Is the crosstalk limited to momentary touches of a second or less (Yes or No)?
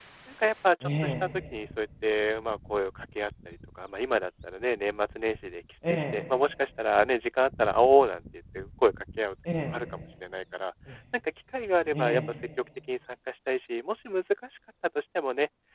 Yes